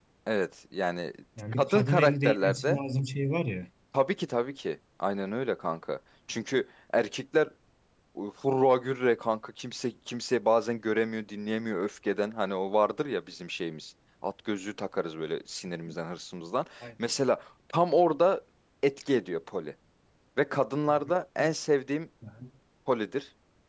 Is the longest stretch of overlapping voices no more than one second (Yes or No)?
No